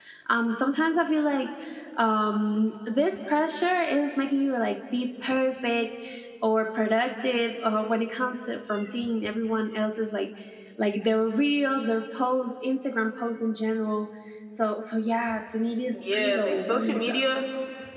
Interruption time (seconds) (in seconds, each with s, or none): 15.9 s